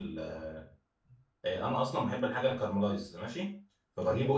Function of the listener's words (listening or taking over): taking over